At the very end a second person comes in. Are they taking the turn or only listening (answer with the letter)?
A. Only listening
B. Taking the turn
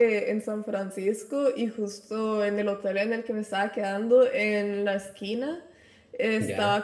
A